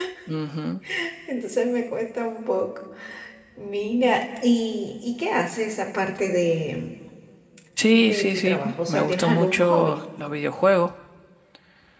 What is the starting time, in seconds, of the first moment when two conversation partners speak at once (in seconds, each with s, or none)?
7.9 s